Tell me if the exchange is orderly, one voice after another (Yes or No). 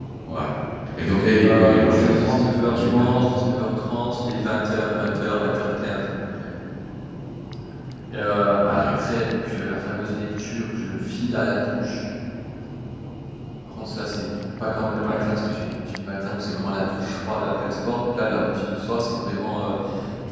No